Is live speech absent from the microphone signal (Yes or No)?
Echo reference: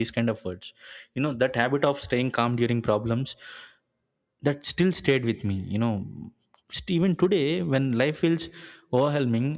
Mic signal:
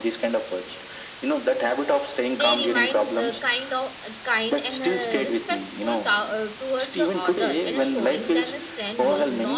No